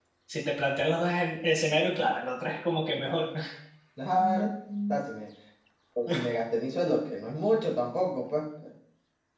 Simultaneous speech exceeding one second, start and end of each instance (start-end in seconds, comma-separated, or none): none